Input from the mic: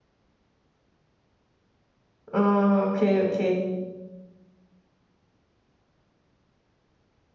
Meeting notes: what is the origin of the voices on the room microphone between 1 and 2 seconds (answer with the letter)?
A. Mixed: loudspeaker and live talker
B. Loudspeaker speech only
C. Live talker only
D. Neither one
D